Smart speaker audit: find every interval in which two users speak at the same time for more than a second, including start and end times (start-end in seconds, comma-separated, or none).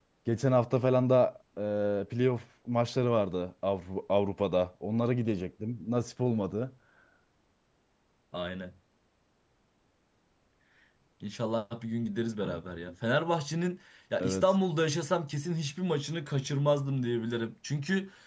none